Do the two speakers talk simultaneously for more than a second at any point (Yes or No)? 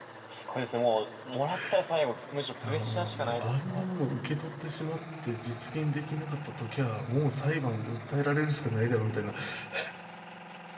Yes